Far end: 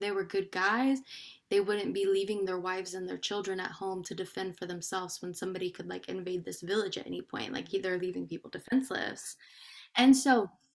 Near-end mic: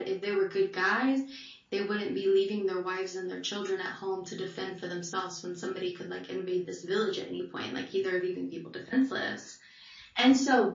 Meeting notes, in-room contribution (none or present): none